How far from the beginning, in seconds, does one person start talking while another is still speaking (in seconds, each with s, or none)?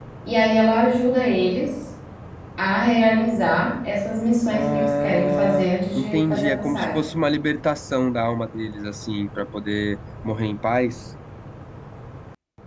4.5 s